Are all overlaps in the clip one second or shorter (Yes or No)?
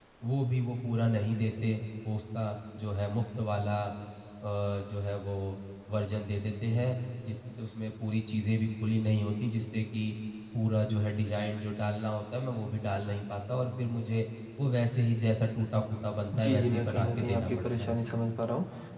No